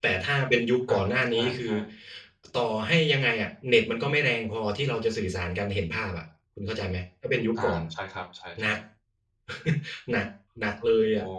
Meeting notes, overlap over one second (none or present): none